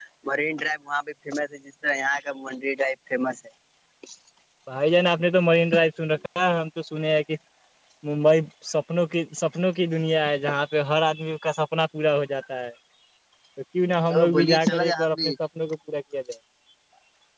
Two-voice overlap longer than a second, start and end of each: 14.1-15.3

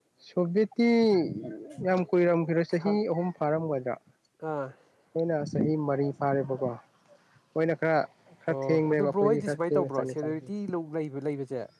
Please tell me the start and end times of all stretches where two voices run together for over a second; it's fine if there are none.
8.5-10.5

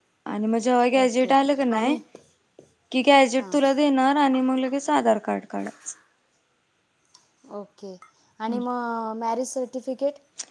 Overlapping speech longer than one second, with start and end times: none

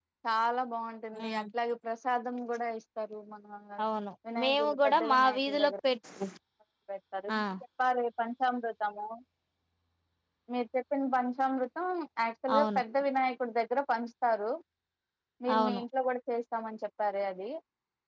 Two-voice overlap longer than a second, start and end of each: 4.4-5.7

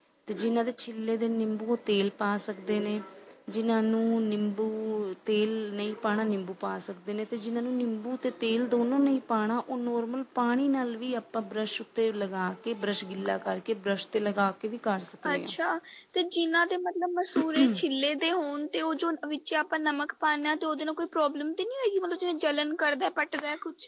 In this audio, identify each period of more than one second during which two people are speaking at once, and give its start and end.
none

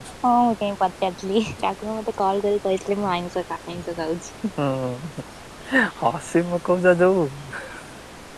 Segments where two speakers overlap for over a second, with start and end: none

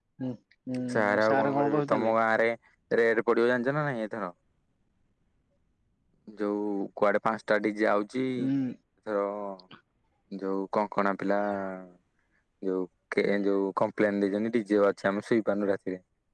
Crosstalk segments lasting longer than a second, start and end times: 0.9-2.1

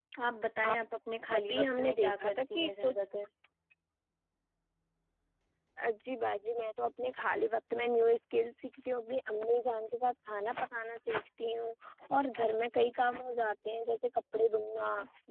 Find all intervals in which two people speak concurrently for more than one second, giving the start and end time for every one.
1.4-3.0

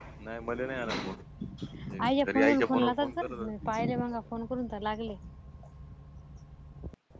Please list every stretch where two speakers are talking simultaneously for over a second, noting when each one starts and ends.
1.9-3.5

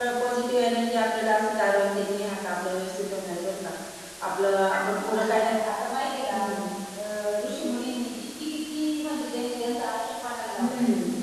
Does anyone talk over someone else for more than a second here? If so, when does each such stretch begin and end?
none

